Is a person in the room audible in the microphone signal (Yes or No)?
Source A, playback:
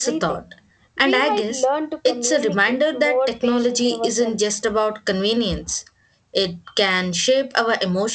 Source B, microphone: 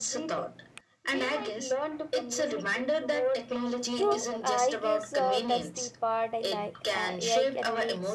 Yes